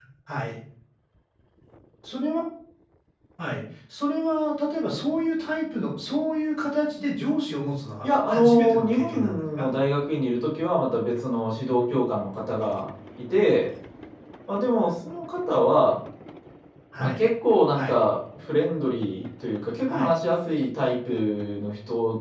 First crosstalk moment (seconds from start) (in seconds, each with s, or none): 8.0 s